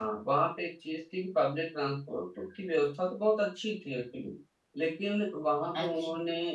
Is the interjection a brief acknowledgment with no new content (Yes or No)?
Yes